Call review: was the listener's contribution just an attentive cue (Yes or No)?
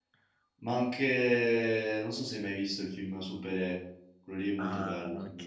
No